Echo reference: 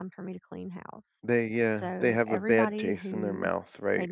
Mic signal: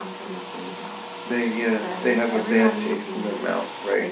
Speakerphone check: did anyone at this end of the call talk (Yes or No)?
No